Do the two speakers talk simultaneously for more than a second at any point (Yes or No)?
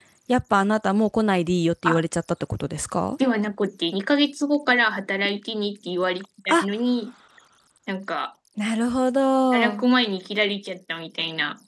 No